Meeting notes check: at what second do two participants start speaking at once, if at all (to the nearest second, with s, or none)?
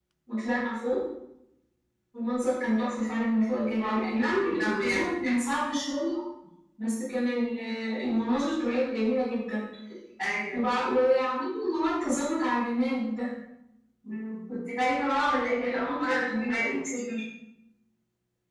4 s